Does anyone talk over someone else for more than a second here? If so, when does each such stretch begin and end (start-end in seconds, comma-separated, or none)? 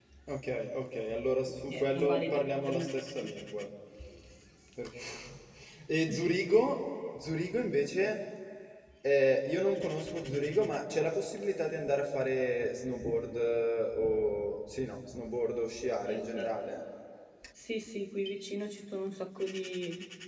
1.7-3.3